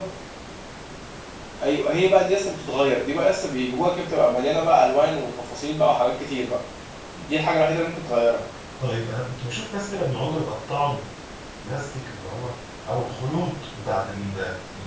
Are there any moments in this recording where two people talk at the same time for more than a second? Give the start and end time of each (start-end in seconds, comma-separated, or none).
none